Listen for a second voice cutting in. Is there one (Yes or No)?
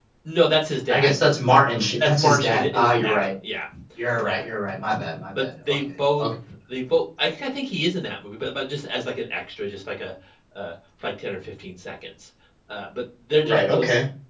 Yes